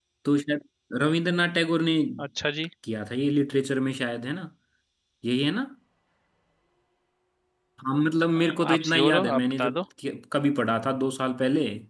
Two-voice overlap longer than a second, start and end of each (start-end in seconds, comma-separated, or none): 8.4-9.8